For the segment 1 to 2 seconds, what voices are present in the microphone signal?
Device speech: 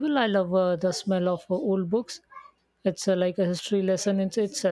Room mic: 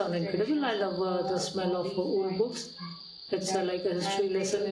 both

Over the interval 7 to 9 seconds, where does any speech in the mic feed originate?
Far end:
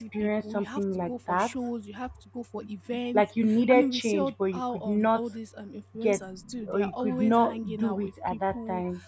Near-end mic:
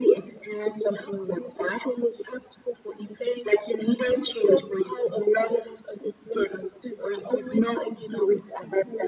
echo only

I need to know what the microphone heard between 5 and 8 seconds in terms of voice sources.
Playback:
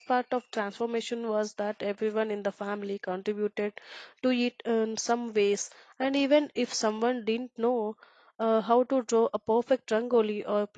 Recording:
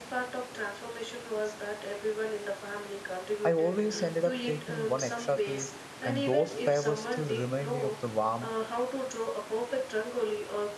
both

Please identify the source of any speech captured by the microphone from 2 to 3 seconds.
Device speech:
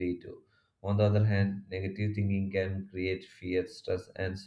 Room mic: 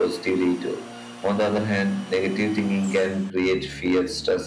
echo only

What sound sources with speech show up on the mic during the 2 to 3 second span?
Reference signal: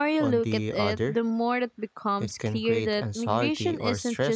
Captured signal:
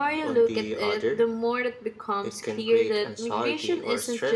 echo only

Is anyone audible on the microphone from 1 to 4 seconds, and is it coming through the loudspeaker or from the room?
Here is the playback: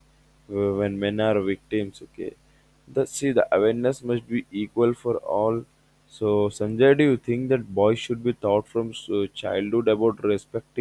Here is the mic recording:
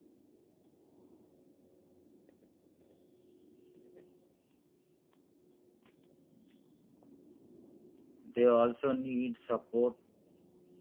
neither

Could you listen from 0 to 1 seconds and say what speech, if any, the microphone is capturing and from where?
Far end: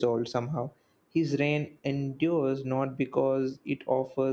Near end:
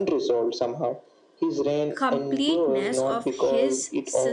echo only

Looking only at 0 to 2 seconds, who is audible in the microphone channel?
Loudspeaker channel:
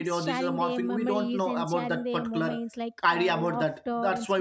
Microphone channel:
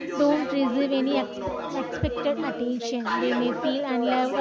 both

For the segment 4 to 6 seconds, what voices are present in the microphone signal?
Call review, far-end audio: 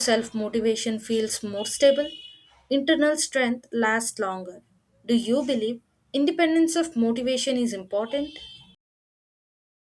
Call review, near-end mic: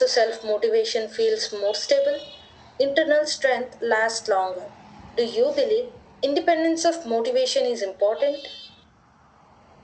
echo only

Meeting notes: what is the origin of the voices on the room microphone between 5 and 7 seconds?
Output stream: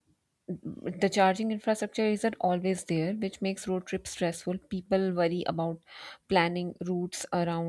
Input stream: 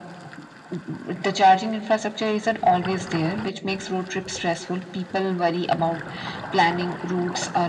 echo only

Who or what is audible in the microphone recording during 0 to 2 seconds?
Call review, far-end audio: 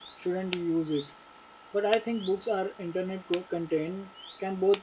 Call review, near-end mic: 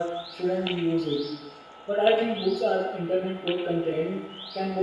echo only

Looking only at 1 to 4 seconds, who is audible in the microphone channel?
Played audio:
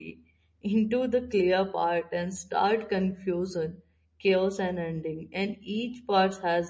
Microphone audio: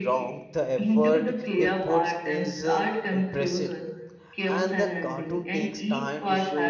both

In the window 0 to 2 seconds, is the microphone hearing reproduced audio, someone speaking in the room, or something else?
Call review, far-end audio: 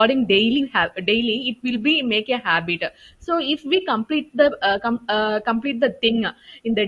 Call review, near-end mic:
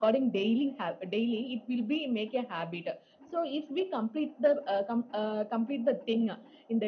echo only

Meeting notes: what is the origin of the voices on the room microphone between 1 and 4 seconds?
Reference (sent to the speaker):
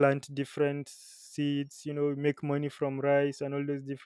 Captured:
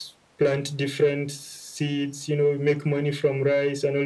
echo only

